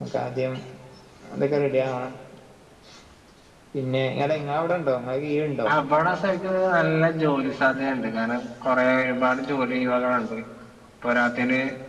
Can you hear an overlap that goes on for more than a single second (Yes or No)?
No